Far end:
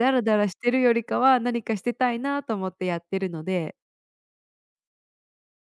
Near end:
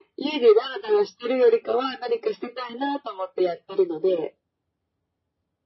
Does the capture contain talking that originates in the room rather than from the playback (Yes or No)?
No